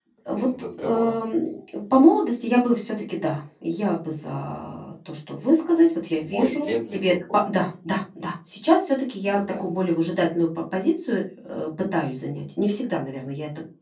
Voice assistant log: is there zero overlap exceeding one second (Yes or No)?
No